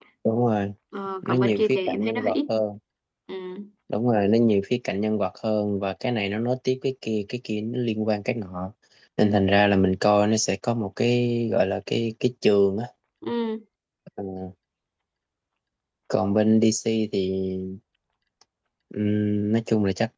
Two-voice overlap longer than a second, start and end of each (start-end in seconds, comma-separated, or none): 1.2-2.5